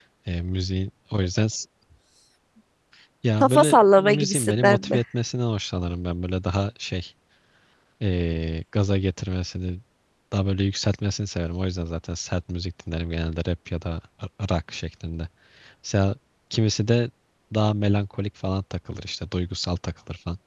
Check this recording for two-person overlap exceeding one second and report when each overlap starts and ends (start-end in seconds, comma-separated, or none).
3.4-5.0